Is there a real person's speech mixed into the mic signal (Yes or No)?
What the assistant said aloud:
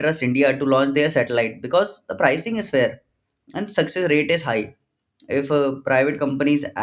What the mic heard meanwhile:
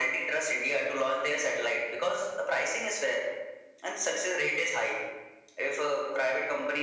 No